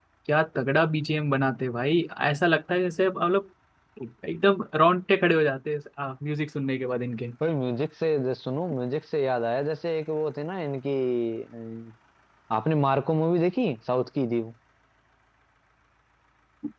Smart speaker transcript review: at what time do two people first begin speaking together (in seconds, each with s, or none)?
none